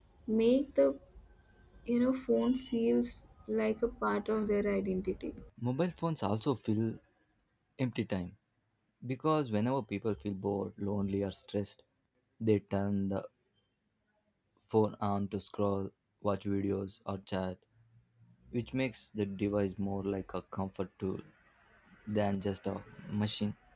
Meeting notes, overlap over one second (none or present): none